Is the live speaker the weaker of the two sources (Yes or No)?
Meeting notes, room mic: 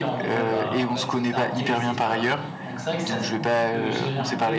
Yes